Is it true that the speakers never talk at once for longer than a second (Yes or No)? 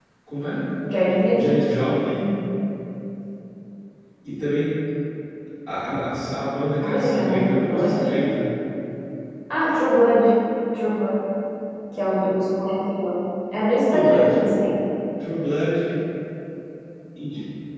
No